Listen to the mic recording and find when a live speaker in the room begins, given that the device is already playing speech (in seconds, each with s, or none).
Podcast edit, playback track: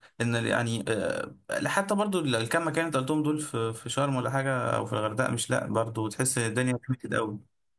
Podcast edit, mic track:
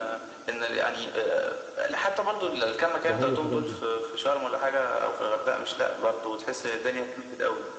3.0 s